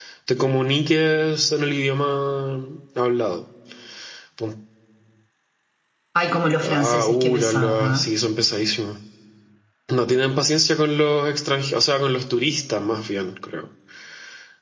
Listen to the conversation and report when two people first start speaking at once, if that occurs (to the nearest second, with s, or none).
7 s